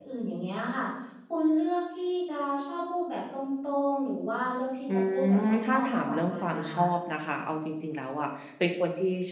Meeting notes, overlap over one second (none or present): present